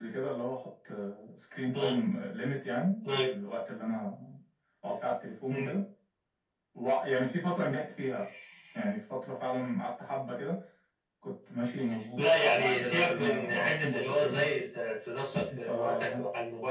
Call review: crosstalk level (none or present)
present